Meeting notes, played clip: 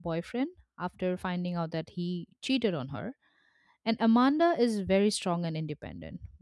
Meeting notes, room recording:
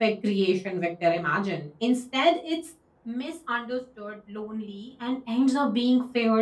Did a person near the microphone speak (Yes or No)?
Yes